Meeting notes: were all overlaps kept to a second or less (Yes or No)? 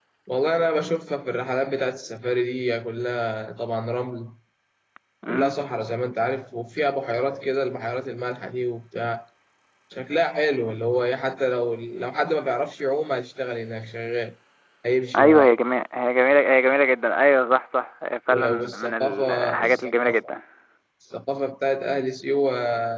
No